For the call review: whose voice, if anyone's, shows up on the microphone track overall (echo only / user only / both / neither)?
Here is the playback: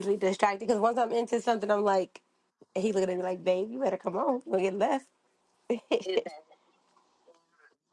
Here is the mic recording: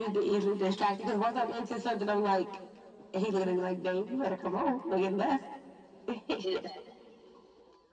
echo only